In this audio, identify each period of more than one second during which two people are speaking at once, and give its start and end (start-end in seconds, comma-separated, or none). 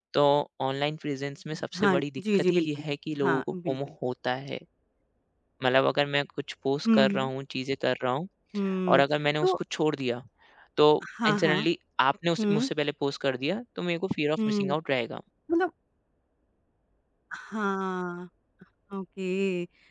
1.8-3.8